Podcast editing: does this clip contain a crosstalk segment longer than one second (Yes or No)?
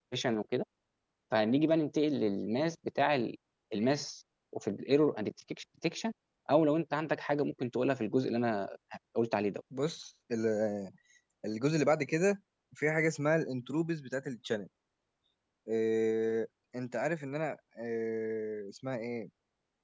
No